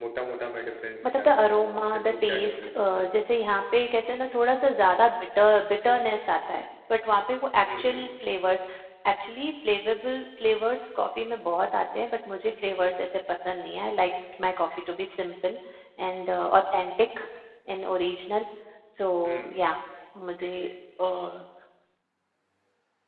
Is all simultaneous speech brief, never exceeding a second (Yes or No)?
No